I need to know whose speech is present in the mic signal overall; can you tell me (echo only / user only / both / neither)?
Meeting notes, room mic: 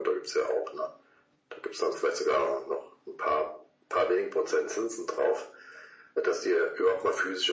echo only